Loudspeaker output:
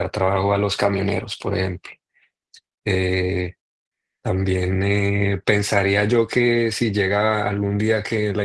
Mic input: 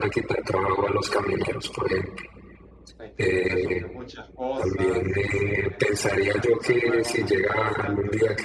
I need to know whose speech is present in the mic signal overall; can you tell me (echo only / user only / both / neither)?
both